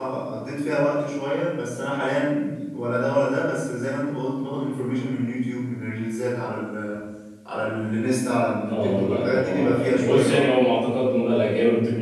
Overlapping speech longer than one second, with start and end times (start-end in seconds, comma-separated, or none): 8.7-10.5